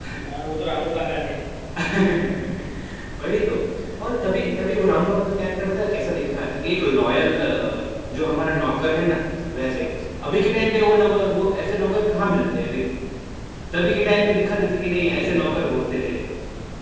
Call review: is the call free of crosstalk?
No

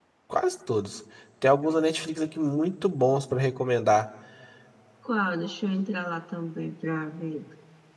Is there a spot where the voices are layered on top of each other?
No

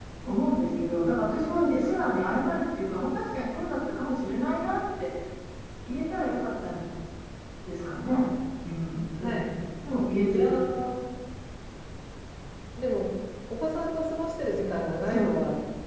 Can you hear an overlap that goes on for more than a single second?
No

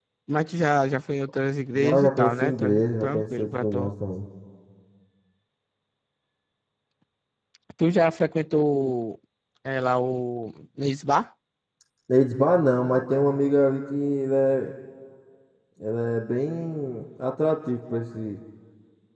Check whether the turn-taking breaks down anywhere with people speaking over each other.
Yes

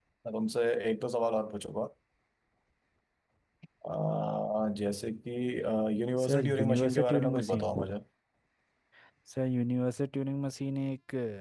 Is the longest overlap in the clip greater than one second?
Yes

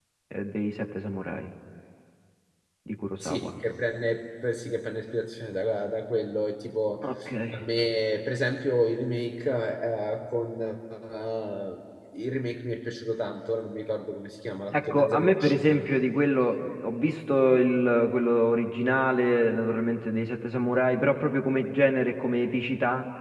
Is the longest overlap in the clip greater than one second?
Yes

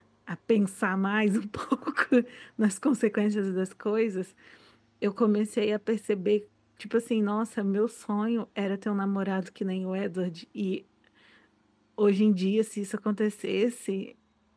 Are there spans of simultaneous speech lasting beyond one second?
No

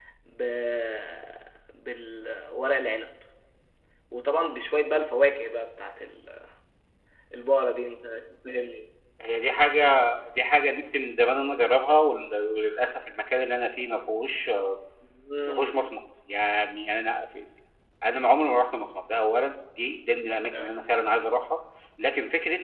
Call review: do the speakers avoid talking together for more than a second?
Yes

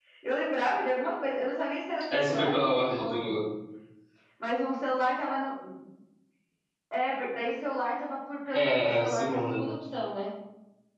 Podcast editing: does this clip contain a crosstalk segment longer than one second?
Yes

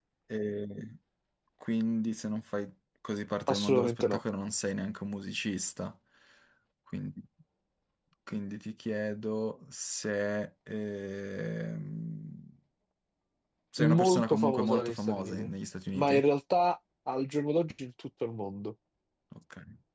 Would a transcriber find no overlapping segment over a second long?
No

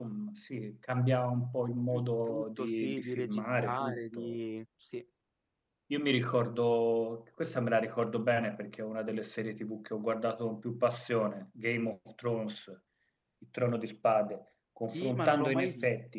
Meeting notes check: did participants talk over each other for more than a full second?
Yes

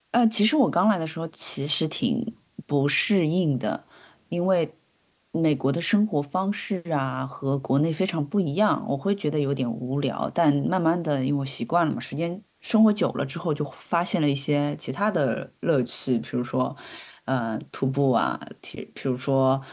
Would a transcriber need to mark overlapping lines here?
No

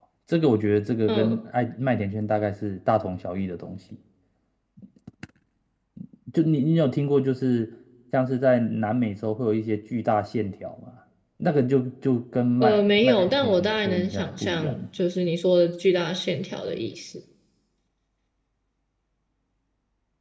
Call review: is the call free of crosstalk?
No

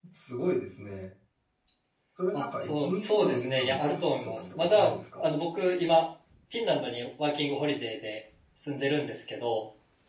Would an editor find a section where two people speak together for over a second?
Yes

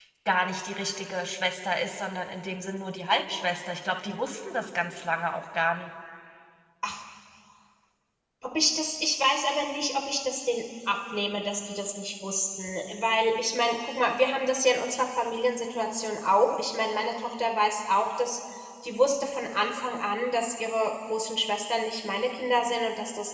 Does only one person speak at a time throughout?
Yes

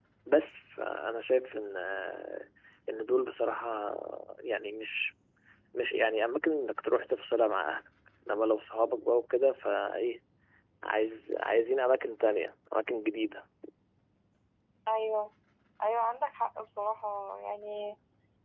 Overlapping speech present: No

